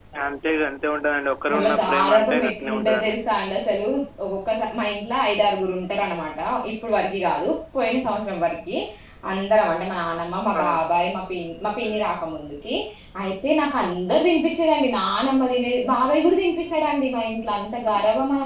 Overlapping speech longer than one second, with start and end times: 1.5-3.2

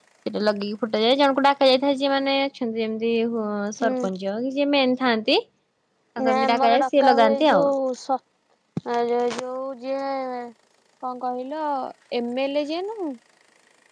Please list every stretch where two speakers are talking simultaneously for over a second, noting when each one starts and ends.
6.3-7.7

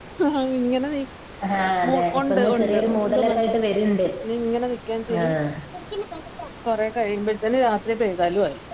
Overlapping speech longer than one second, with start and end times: 1.9-3.4

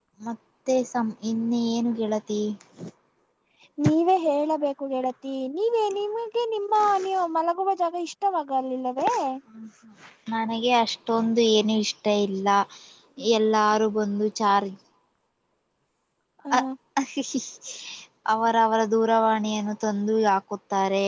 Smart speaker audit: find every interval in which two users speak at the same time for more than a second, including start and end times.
none

